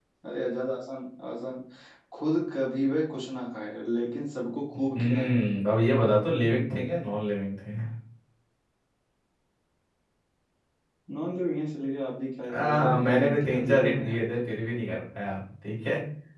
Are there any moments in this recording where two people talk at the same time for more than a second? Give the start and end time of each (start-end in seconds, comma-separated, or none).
12.5-14.4